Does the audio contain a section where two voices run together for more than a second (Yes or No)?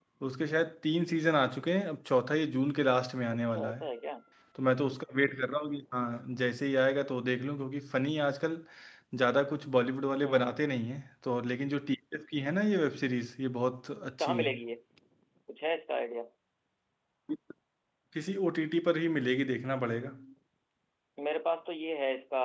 No